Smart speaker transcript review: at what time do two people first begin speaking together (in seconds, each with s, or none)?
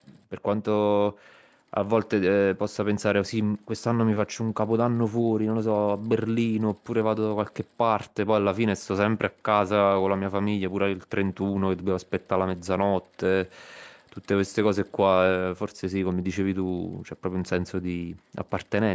none